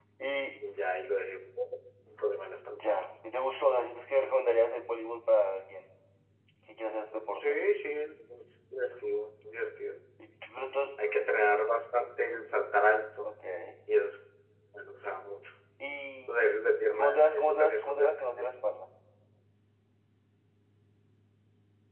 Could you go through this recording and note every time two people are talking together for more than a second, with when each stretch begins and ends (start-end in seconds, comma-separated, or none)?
16.3-18.5